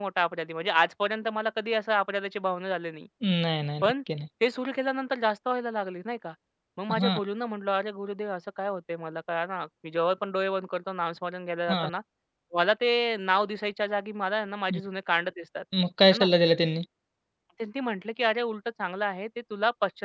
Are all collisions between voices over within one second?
Yes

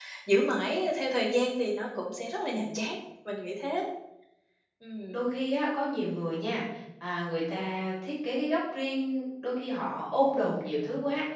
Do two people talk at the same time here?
No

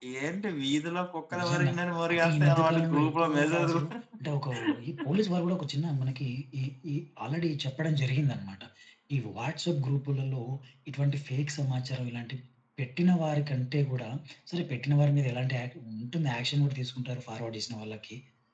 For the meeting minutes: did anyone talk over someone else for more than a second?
Yes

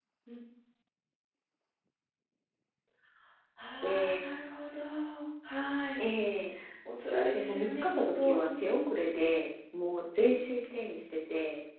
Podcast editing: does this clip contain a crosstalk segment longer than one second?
Yes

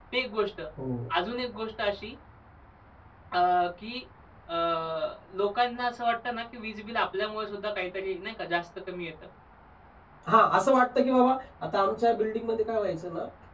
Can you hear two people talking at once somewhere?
No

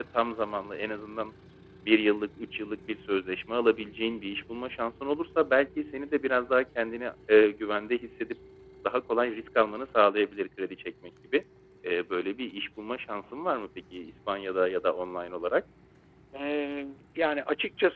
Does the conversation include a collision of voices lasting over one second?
No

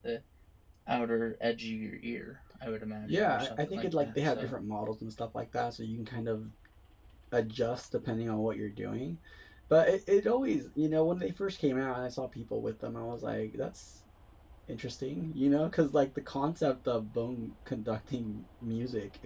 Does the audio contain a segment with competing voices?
Yes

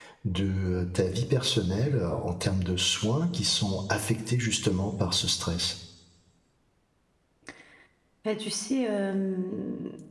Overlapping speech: No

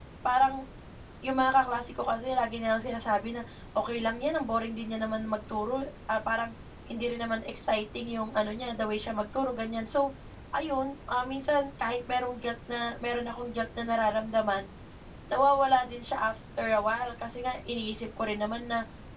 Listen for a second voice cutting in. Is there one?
No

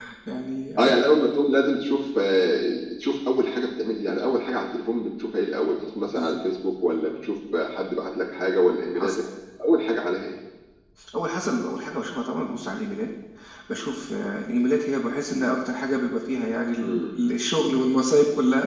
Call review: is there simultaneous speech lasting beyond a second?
No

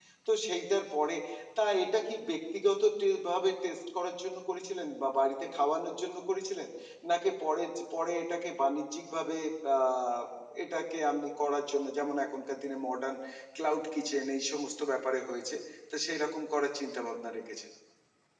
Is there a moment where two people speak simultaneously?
No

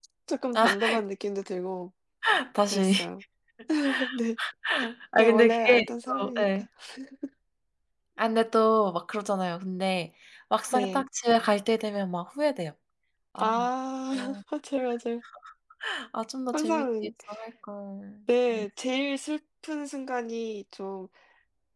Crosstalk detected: Yes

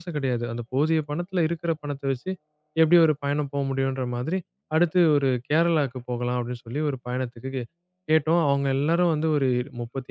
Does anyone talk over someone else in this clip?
No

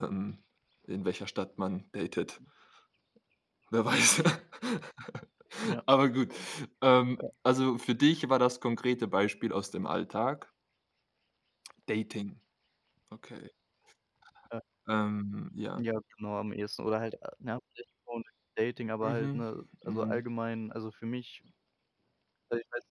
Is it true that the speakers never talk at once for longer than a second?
Yes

